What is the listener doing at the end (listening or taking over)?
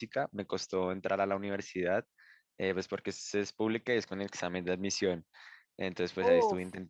listening